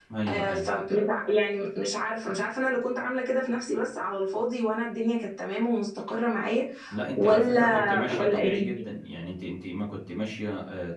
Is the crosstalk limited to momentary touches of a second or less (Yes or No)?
No